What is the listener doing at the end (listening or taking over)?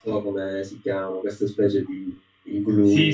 taking over